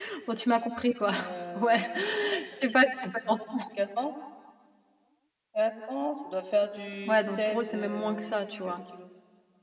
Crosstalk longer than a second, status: present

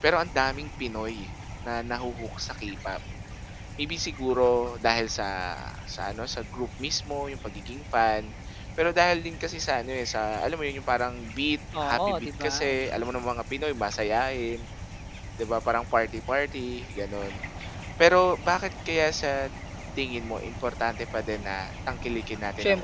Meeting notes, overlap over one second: present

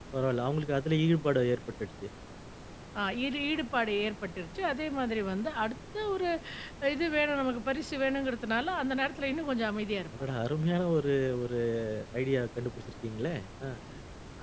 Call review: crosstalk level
none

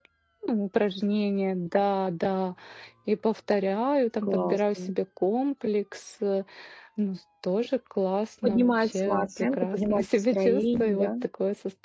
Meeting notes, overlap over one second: present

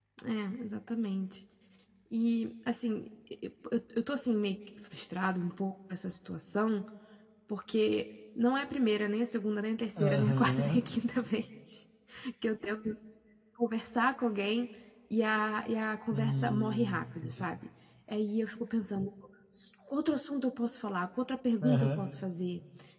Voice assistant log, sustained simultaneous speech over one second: present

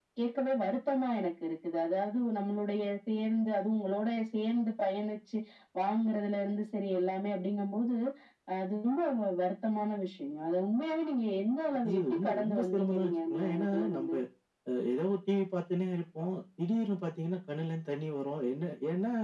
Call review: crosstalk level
present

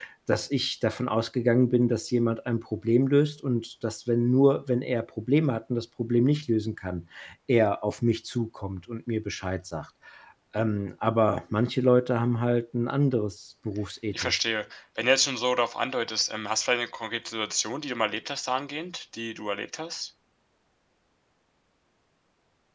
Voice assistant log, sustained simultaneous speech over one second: none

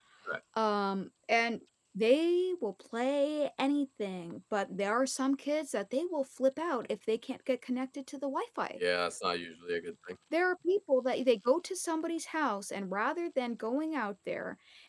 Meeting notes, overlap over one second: none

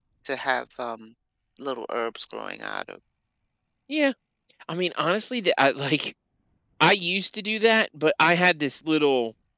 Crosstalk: none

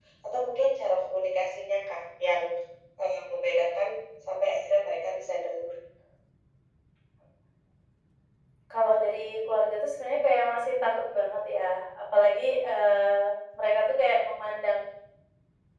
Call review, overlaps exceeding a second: none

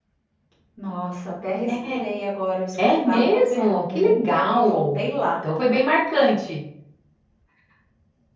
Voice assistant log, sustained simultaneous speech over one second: present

